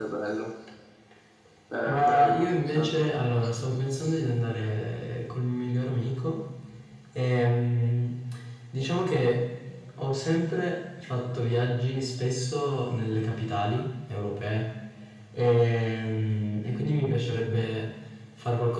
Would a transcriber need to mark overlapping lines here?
Yes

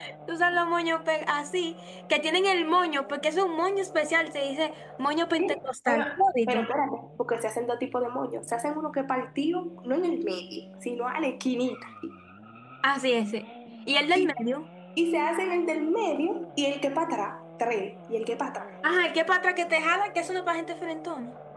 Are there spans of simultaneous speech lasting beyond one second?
No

